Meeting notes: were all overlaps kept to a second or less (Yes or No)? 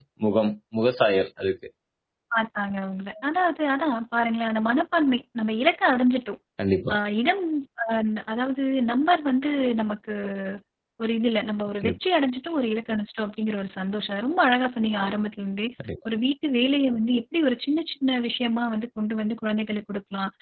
Yes